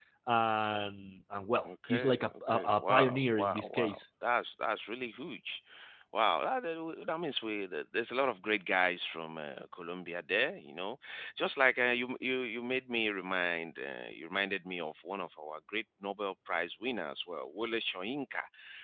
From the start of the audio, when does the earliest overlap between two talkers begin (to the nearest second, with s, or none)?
2 s